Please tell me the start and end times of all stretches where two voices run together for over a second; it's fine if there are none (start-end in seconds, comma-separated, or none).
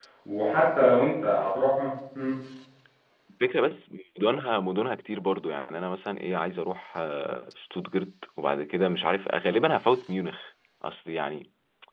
none